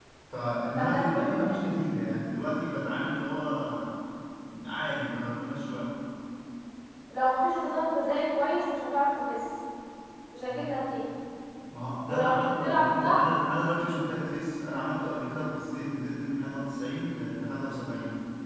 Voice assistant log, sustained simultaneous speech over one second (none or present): present